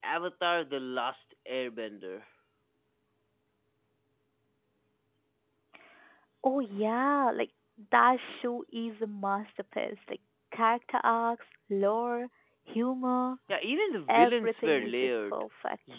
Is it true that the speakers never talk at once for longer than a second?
No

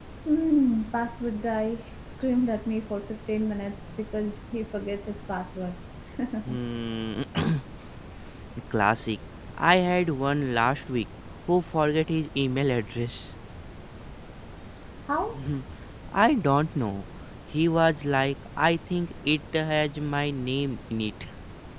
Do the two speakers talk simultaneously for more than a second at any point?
No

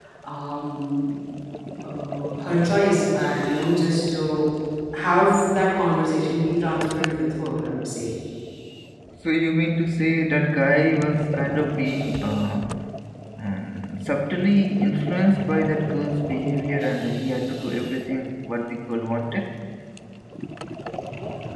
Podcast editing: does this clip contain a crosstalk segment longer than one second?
No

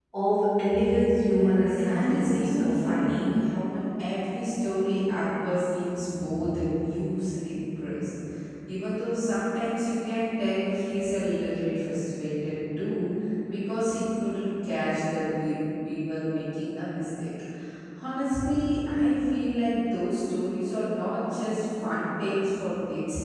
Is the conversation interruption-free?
No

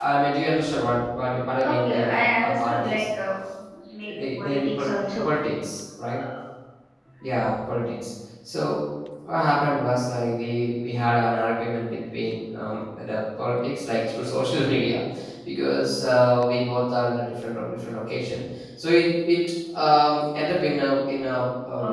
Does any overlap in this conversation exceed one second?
Yes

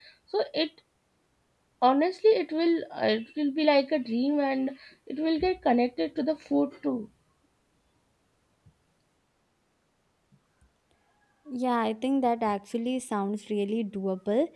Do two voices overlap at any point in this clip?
No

